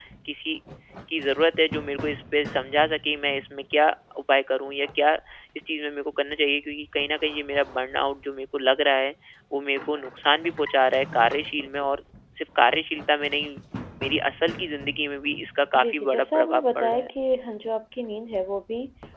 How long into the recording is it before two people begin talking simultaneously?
15.7 s

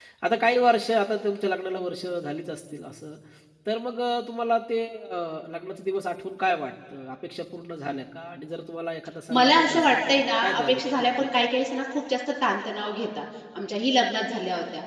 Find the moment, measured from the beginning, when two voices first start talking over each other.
9.3 s

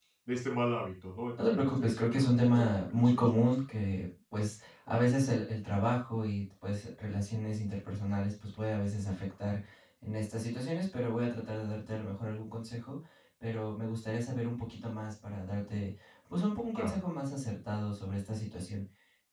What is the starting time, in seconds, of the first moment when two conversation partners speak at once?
1.4 s

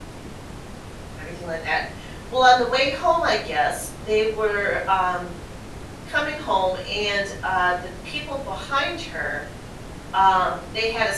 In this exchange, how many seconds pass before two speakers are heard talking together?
none

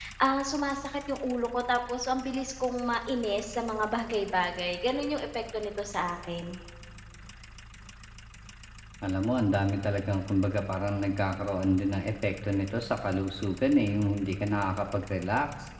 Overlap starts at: none

